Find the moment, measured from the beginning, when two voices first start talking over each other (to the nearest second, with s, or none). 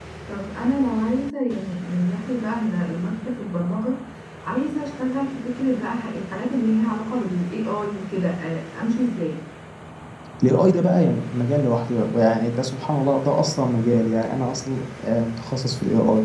none